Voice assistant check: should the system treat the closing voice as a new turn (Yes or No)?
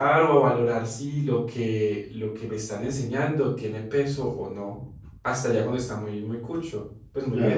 Yes